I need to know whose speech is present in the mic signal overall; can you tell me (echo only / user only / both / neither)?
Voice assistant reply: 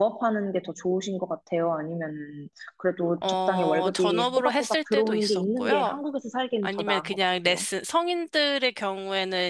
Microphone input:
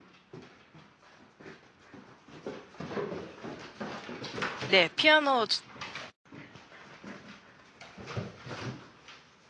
user only